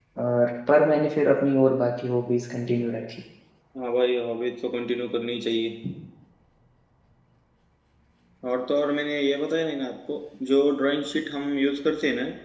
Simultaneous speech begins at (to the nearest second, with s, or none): none